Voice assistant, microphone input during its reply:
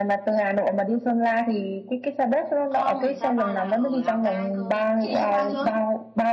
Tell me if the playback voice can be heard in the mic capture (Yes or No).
Yes